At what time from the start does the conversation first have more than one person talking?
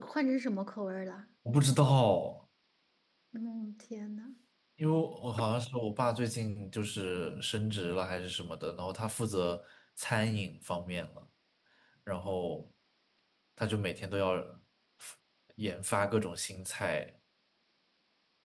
none

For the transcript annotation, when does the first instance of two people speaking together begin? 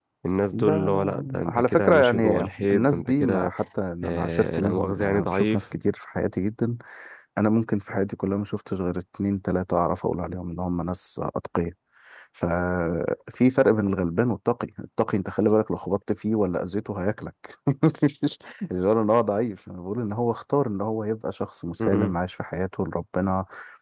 1 s

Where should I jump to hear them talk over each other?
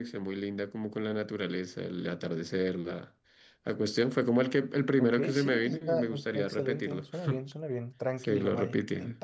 5 s

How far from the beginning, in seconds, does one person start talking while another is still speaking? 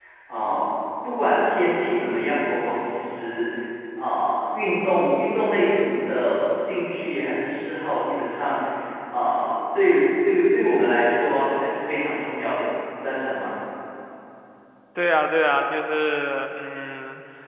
none

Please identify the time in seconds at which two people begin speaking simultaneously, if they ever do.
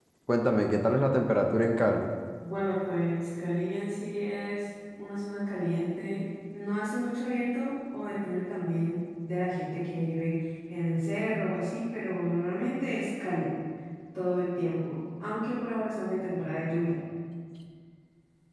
none

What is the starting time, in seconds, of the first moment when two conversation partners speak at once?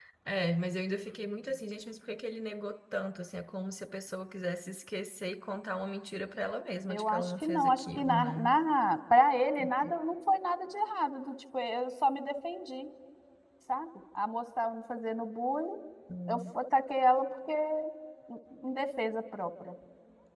7 s

